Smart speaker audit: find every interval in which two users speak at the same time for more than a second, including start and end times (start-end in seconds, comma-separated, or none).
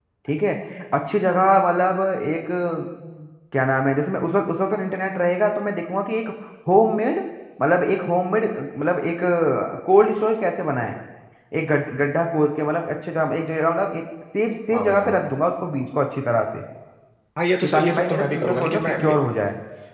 17.6-19.1